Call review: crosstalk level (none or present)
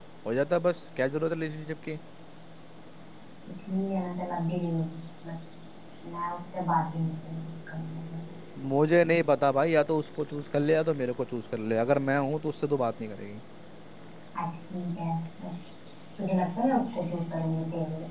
none